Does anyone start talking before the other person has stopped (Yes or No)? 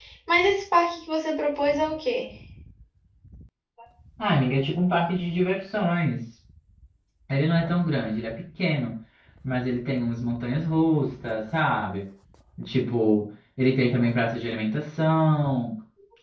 No